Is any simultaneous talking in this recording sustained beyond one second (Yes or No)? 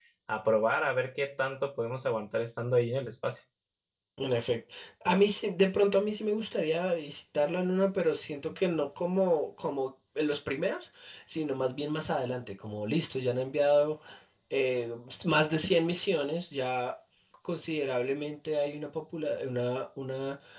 No